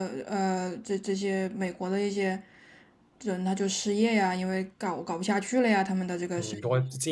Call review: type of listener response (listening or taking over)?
taking over